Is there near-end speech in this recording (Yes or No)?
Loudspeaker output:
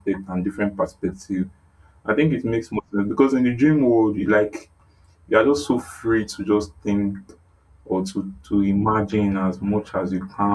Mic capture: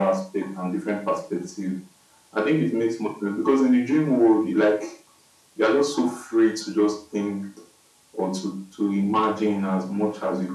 No